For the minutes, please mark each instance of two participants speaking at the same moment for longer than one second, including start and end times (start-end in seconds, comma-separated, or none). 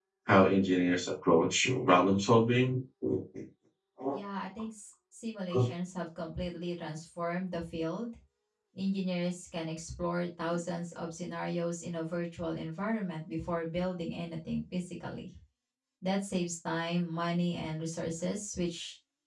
none